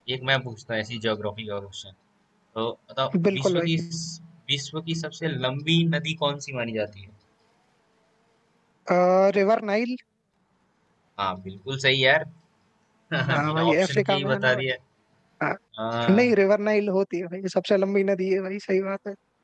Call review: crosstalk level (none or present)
present